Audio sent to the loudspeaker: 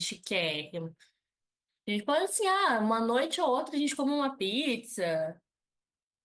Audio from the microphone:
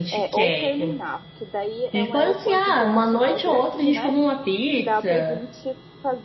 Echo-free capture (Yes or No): No